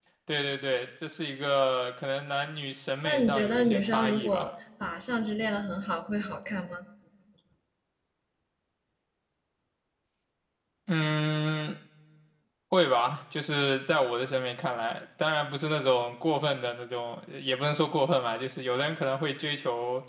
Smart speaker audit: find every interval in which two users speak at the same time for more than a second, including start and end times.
3.0-4.5

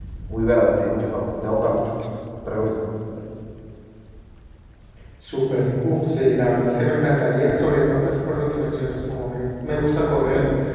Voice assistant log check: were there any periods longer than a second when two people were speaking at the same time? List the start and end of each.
none

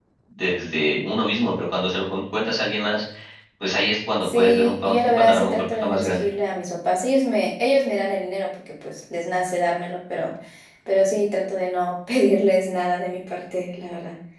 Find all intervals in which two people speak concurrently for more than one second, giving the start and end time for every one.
4.2-6.2

